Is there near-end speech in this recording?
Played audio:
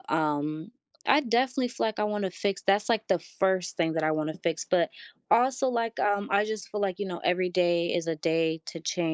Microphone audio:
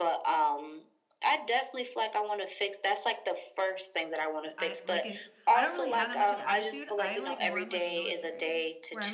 Yes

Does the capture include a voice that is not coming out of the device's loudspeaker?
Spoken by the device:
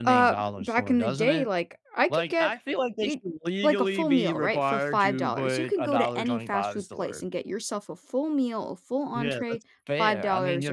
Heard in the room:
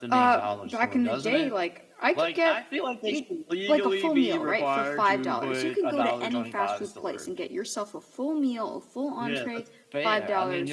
No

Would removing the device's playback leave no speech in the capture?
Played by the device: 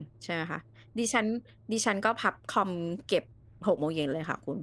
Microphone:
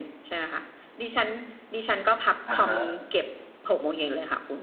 No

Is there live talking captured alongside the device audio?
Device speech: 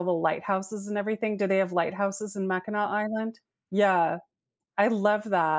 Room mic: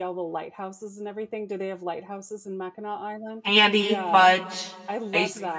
Yes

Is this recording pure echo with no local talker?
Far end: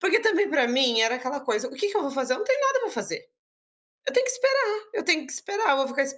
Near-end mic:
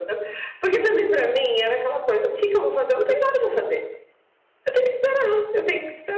Yes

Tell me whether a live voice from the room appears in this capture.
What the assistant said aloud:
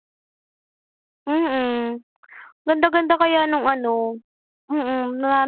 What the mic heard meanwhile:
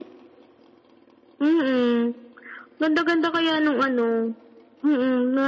No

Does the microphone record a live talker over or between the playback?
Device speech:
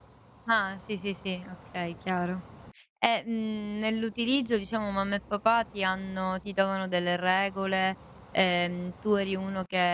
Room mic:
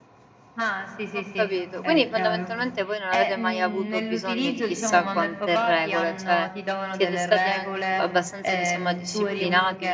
Yes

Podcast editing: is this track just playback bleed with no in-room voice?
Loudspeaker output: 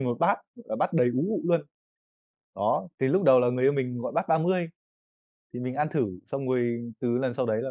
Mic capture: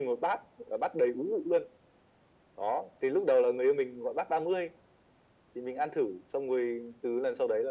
Yes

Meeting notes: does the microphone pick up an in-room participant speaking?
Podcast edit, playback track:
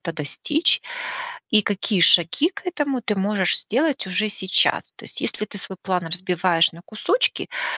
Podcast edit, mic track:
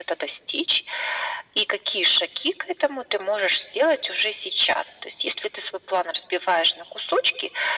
No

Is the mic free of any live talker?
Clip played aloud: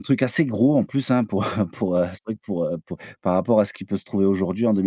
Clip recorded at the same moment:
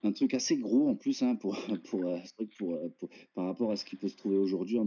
Yes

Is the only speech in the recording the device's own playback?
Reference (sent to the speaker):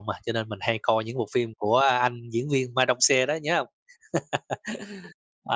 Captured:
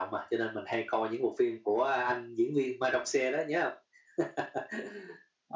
Yes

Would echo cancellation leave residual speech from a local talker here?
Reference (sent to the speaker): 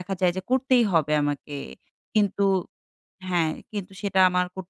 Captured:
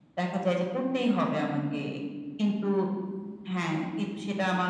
No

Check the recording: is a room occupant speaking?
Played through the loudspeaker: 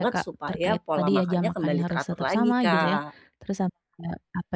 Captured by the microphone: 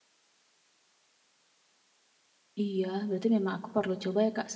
Yes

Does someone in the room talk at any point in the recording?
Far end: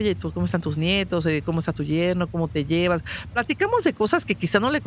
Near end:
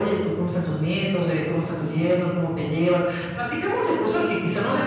Yes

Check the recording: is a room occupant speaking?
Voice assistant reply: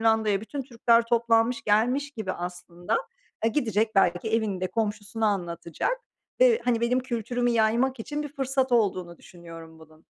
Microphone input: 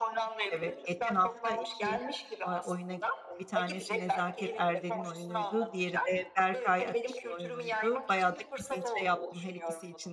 Yes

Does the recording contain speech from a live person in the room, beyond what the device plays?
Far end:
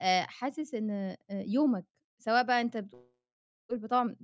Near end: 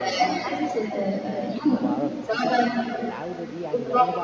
Yes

